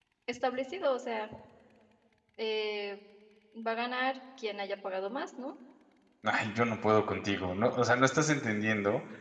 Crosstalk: none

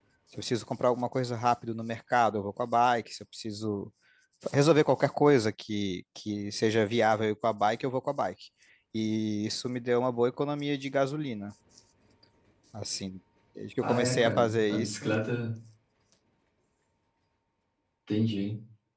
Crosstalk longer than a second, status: present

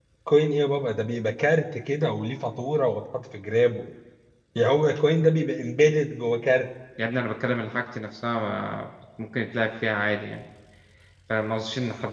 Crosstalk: none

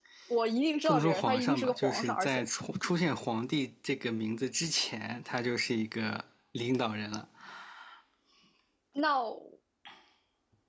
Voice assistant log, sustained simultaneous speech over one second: present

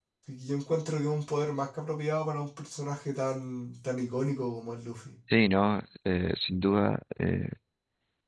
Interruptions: none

